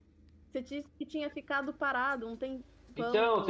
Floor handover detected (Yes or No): Yes